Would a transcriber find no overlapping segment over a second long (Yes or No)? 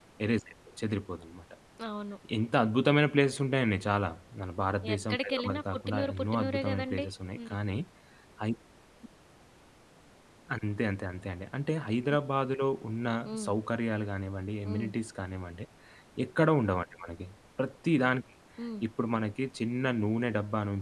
No